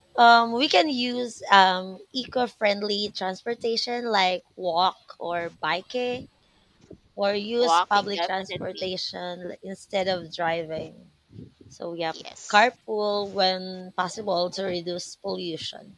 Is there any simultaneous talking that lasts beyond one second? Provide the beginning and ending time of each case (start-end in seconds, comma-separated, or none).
7.6-8.9